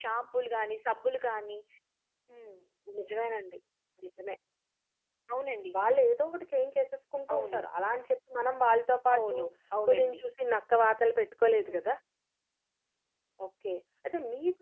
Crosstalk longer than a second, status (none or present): none